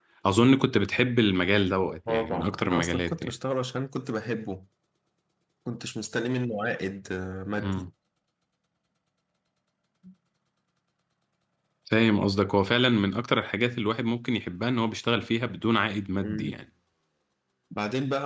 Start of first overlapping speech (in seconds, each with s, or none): 2.1 s